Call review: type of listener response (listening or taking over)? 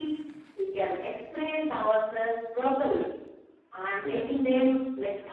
listening